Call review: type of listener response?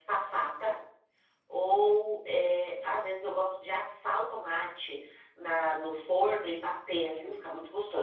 taking over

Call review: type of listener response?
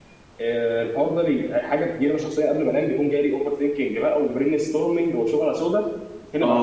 taking over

